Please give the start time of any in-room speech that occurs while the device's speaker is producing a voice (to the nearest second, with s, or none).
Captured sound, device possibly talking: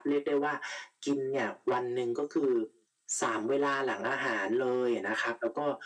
none